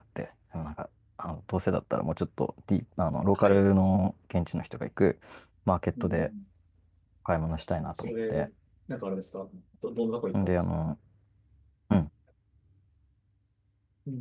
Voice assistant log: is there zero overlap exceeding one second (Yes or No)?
Yes